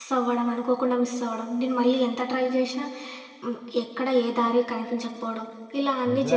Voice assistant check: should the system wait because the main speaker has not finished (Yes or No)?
No